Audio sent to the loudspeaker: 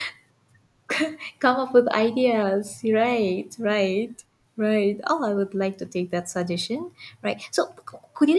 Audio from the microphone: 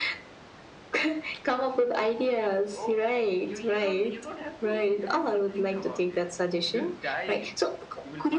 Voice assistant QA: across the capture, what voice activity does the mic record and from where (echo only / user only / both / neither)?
both